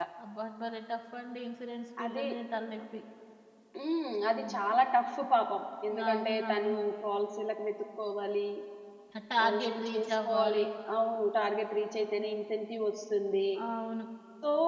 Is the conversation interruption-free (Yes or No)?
No